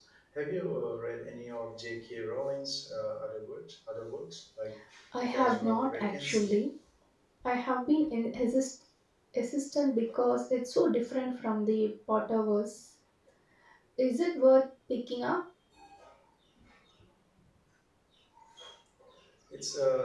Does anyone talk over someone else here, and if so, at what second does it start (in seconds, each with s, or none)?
5.2 s